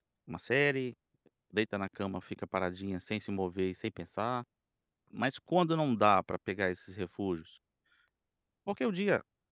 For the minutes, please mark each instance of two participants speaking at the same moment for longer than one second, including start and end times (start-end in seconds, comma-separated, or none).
none